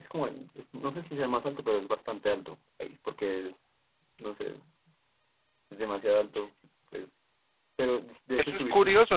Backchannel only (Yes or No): No